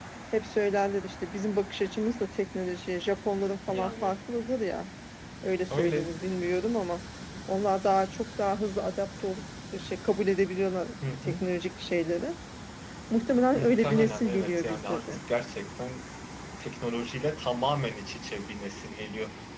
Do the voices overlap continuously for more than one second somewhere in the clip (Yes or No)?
Yes